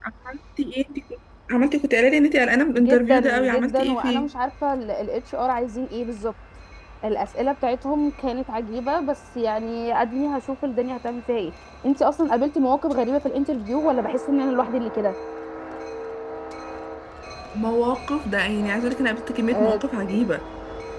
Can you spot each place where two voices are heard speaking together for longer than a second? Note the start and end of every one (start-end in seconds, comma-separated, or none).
2.8-4.3